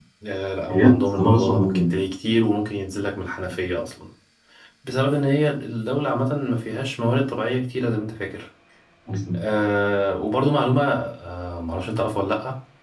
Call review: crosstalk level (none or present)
present